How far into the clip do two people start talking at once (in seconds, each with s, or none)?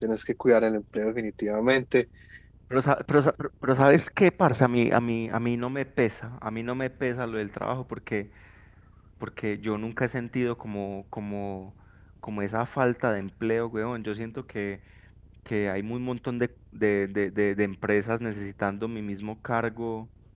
none